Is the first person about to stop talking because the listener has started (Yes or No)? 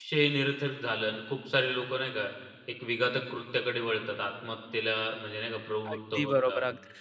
Yes